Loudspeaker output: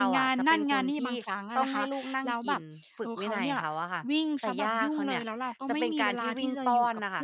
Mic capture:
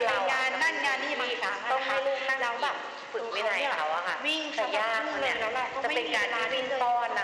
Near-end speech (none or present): none